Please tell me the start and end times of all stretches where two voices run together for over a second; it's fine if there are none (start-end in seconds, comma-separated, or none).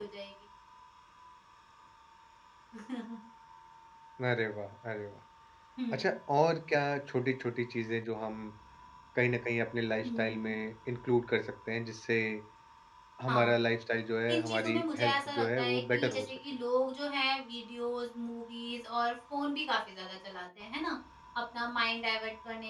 14.3-16.3